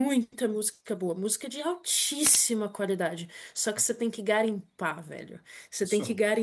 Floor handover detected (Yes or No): No